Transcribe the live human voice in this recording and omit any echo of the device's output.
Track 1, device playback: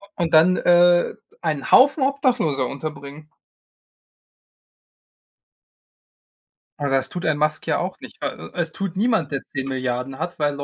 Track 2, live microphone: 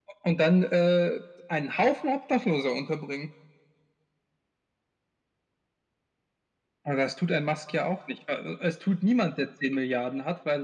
none

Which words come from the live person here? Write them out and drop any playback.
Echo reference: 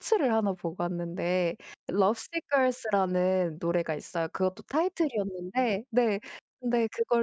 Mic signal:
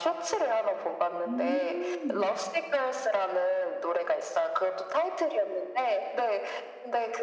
음.

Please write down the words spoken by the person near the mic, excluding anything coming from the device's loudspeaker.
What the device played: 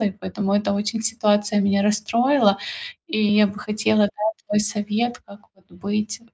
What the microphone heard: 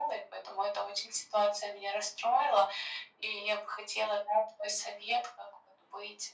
none

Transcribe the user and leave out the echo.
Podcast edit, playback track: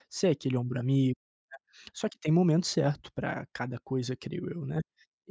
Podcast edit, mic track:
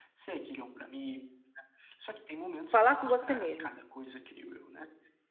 falar com você mesmo

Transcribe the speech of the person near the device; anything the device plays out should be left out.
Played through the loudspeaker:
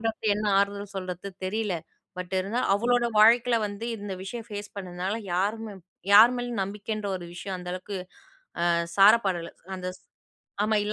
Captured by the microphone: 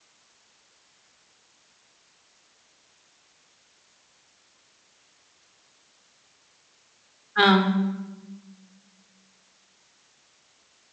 ஆ.

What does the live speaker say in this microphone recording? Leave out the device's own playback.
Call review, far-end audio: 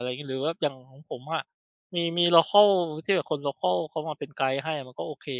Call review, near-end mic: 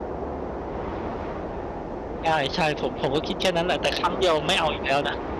ใช่ ๆ ผม ผมก็คิดแค่นั้นแหละ แต่ครั้งเดียวไม่เอาอีกแล้วนะ

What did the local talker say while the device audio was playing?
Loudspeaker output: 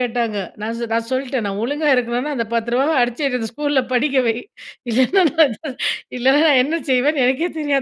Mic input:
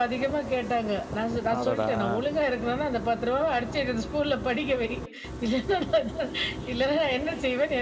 அடடா!

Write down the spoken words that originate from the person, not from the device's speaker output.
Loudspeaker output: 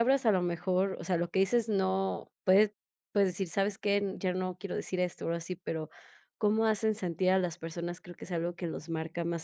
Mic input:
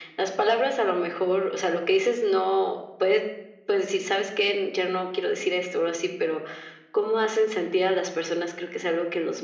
none

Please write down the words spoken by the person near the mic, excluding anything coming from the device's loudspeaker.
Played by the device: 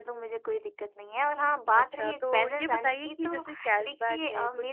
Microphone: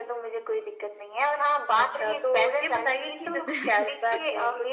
बिल्कुल।

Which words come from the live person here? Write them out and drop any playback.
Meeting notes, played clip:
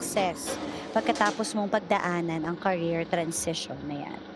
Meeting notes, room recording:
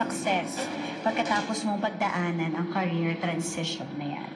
none

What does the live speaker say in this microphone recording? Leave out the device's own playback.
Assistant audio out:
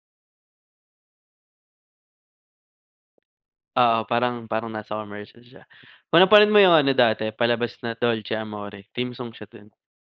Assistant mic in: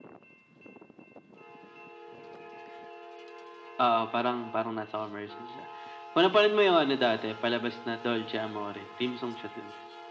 none

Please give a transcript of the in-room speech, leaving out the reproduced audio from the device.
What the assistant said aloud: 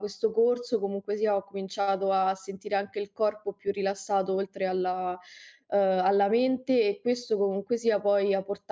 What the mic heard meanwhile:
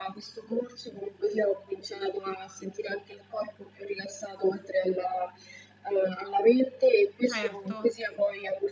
Certo.

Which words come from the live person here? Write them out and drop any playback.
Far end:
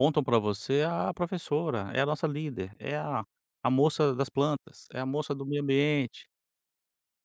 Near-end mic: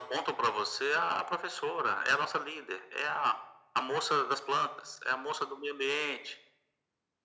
none

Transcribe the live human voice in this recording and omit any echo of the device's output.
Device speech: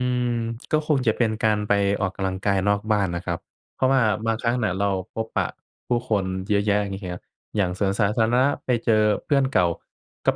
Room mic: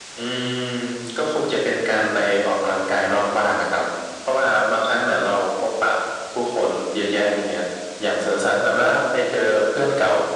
none

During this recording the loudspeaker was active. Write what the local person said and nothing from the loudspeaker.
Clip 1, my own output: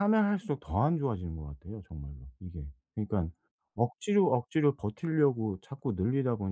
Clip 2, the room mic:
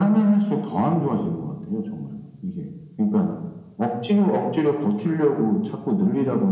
none

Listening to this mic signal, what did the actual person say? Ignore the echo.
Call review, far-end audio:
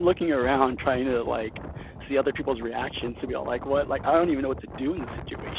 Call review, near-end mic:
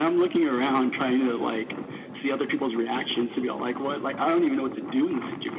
none

